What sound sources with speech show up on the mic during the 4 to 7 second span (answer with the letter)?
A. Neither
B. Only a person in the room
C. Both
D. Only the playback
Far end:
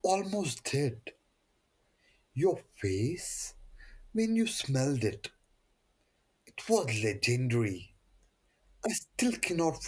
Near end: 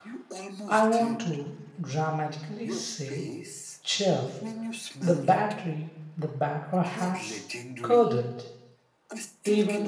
C